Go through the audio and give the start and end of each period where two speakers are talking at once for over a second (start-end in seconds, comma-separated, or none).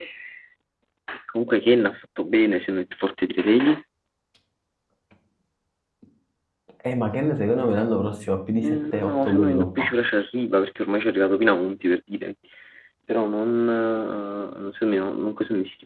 8.6-9.9